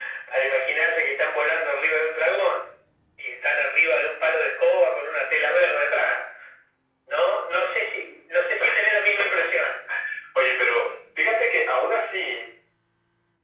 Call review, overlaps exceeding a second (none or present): none